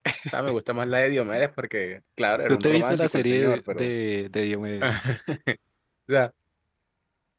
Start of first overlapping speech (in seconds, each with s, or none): 2.5 s